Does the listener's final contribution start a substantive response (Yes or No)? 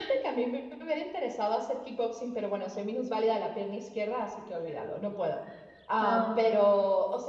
No